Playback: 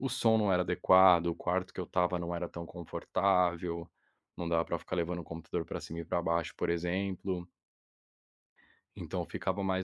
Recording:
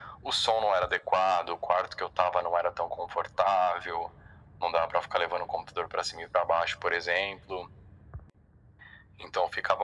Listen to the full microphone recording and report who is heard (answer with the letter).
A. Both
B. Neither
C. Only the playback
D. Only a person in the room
C